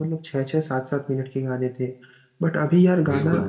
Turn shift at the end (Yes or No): No